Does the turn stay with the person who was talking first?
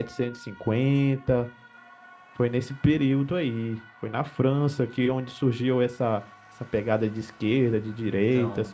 No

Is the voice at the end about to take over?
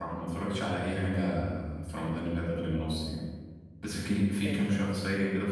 No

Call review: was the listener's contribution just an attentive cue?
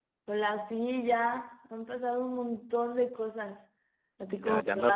No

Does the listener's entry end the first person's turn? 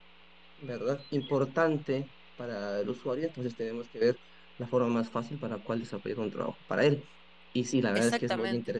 No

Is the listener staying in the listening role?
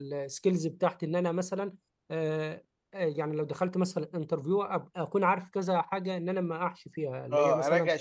No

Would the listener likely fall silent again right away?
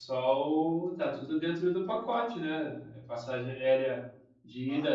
Yes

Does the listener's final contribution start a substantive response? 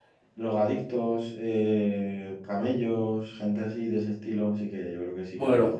Yes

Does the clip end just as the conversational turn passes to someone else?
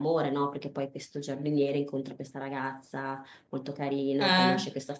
No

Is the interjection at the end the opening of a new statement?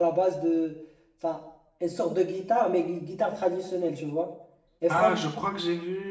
Yes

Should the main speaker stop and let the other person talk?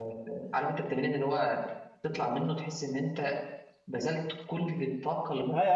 Yes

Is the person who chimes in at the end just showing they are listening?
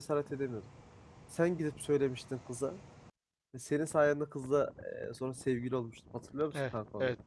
No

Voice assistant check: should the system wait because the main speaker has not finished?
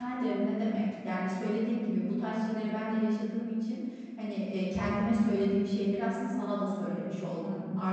Yes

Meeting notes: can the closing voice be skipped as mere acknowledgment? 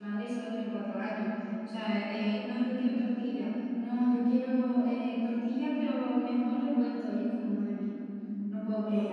No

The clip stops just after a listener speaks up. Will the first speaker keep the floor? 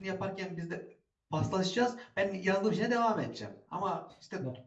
Yes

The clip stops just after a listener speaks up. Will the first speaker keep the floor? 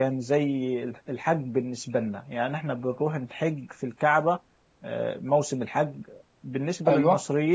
Yes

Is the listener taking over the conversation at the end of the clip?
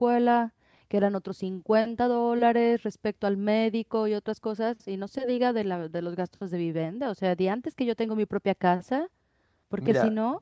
No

